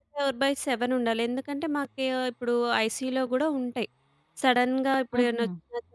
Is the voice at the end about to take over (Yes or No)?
No